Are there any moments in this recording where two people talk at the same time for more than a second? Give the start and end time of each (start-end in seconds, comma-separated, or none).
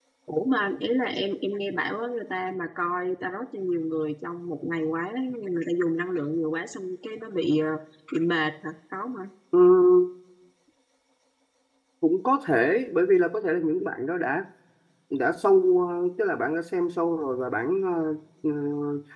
none